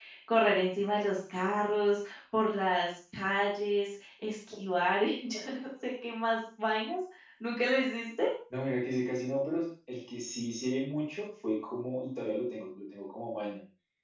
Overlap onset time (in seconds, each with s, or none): none